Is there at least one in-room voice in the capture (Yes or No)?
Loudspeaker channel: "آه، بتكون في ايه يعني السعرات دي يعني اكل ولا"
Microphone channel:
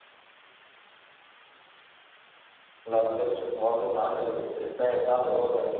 Yes